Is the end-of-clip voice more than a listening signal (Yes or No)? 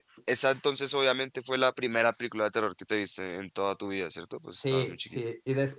Yes